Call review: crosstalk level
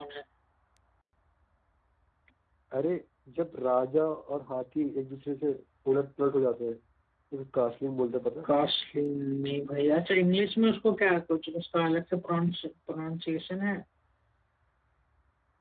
none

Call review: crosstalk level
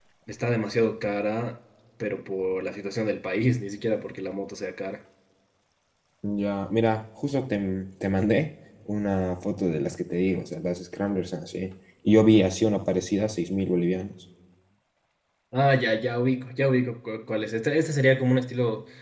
none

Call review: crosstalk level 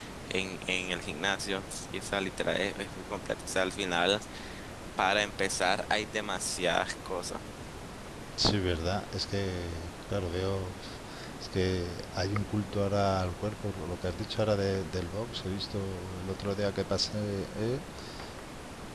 none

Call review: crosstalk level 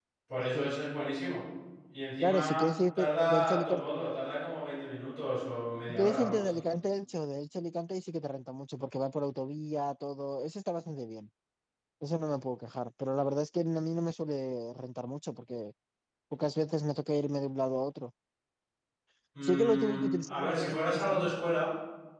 present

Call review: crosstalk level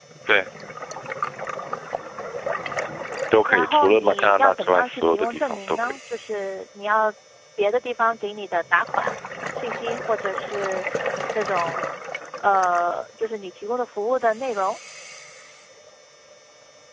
present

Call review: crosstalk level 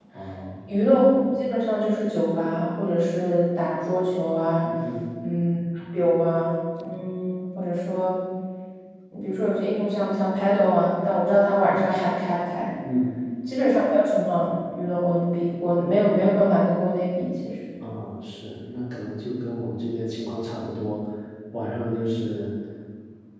none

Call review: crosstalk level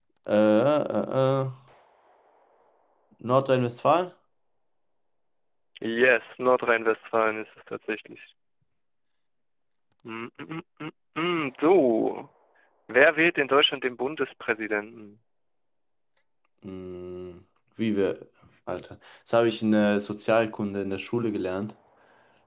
none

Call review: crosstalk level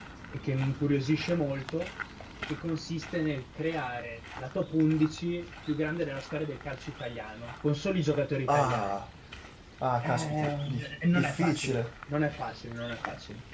present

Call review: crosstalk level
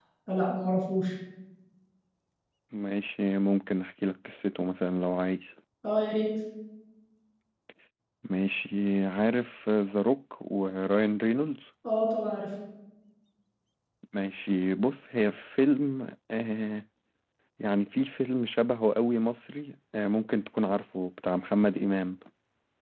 none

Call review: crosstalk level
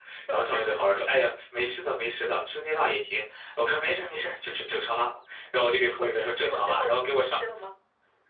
present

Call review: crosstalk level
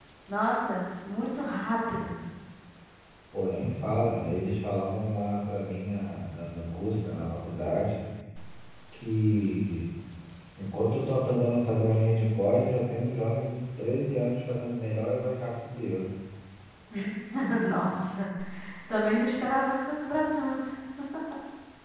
none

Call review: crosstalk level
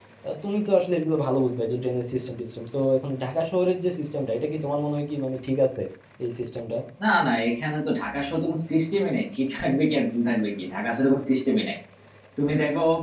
none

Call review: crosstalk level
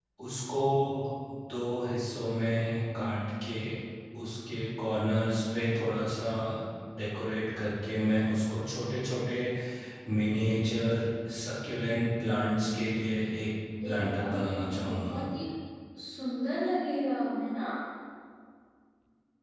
present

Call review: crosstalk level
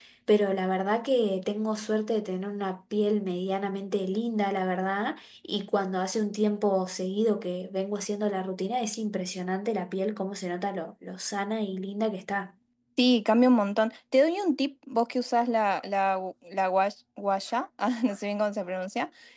none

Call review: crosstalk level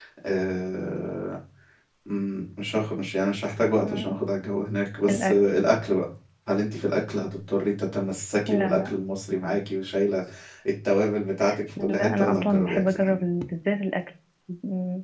present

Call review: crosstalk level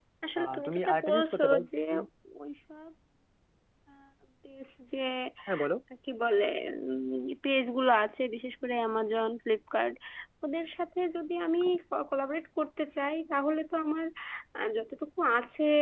present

